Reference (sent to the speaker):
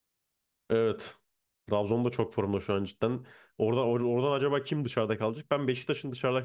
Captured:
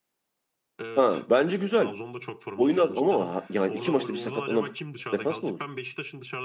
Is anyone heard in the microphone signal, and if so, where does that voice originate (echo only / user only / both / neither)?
both